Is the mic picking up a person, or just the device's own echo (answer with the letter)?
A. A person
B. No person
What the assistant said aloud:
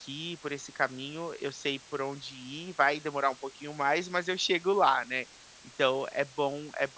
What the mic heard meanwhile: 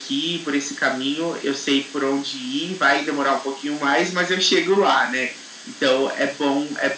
B